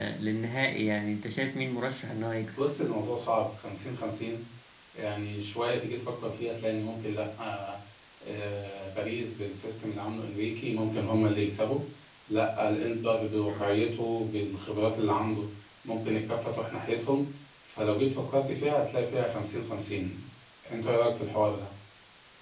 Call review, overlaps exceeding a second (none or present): none